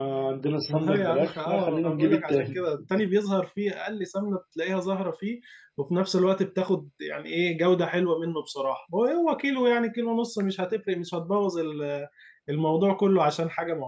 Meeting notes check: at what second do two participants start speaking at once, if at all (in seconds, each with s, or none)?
0.7 s